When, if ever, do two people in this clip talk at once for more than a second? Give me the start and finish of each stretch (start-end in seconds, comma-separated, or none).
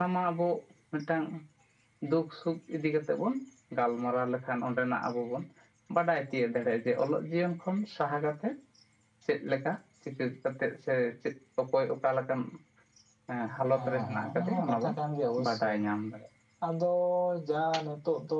13.7-14.9